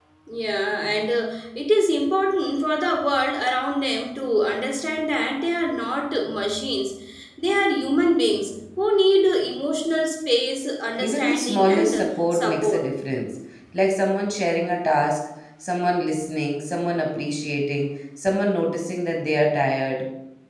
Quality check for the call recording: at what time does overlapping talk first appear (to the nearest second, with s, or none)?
11 s